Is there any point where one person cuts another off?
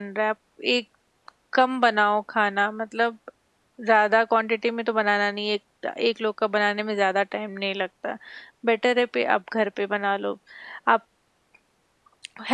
No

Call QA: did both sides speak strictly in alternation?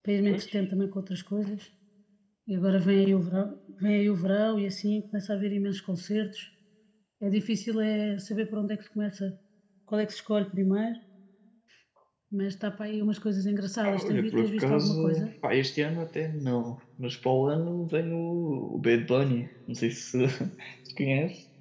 No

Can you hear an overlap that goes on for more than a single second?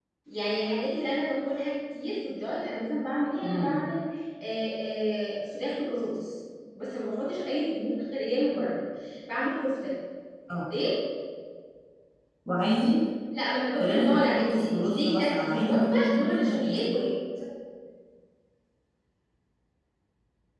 Yes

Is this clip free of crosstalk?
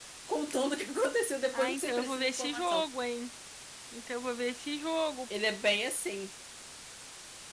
No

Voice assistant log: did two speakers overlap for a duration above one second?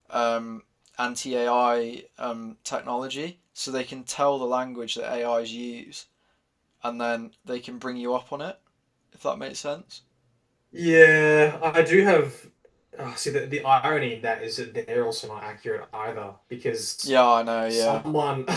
No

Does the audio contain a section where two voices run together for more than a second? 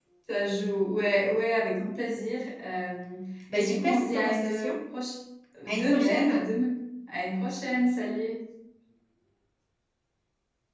Yes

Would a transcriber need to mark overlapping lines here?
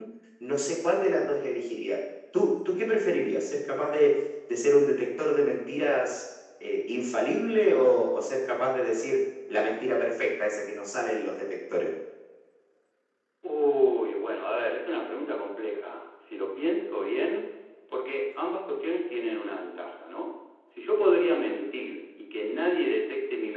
No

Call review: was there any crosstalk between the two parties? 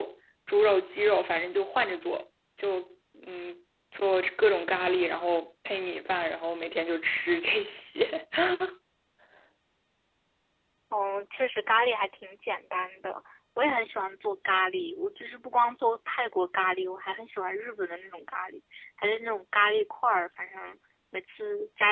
No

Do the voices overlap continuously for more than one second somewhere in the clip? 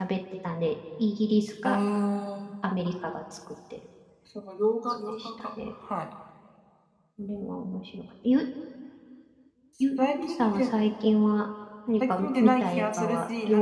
Yes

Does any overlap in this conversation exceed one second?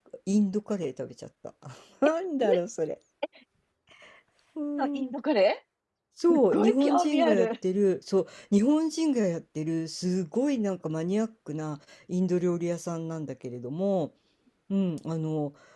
Yes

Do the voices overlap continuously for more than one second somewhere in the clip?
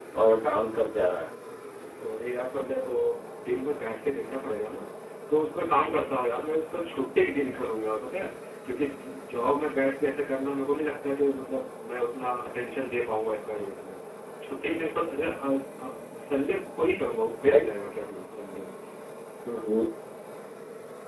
No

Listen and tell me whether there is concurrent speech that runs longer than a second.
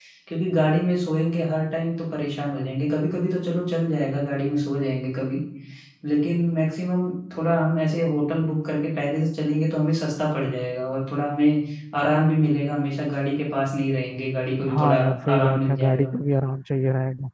Yes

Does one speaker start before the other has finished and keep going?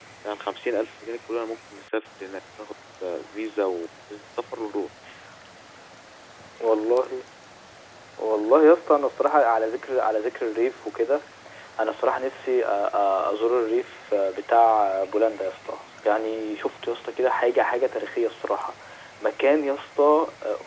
No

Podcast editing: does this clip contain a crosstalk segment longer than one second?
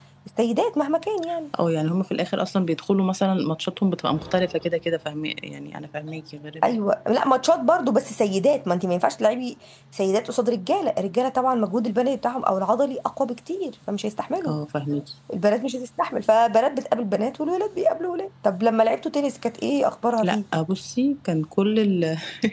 No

